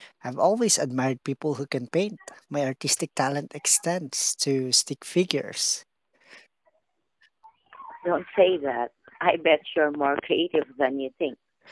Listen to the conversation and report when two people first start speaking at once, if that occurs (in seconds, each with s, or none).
none